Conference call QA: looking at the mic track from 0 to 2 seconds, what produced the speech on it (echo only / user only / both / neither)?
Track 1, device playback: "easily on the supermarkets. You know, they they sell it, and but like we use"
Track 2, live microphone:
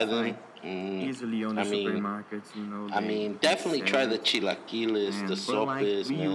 both